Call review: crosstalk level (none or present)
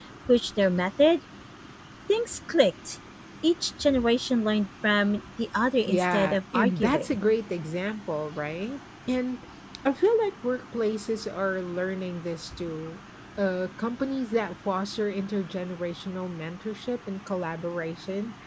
present